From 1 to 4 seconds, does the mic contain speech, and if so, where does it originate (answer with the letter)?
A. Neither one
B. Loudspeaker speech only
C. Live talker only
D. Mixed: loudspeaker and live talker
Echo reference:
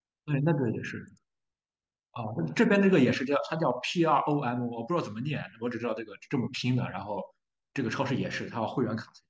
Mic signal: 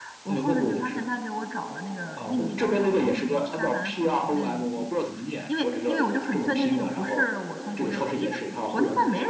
D